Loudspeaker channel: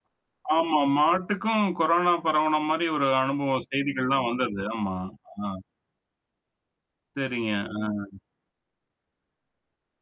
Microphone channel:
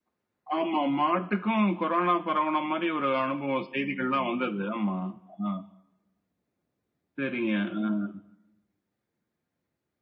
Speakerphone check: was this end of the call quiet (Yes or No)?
Yes